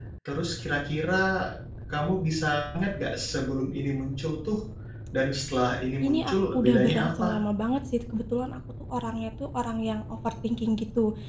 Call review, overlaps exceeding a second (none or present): present